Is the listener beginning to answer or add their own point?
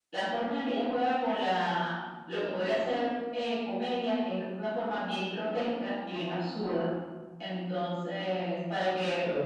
Yes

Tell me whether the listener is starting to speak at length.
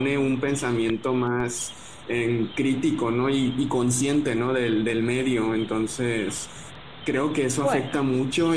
No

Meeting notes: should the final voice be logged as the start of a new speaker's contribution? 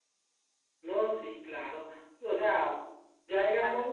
No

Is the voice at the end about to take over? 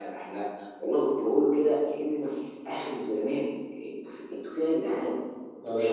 No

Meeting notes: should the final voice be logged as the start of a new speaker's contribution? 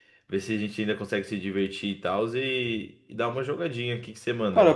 Yes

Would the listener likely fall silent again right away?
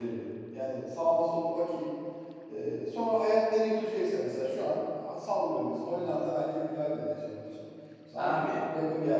Yes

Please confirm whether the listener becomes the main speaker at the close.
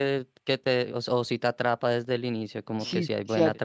Yes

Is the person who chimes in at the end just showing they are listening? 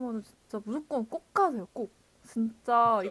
Yes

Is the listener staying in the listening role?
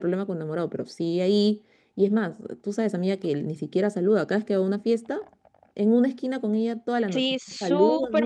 No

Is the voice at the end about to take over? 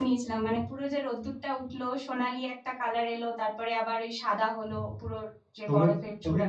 Yes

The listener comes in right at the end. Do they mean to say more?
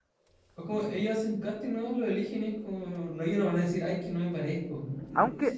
Yes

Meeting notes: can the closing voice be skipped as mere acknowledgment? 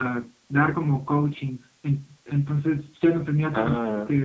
Yes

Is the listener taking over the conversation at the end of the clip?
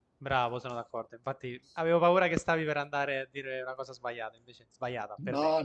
Yes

